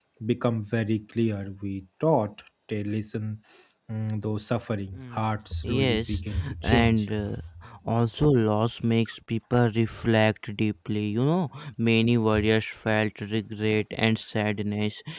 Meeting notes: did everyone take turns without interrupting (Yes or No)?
No